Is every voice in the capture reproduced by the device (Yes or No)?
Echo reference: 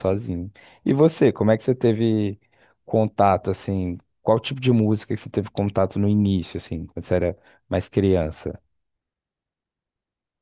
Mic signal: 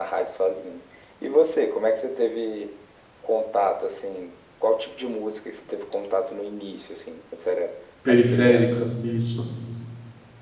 No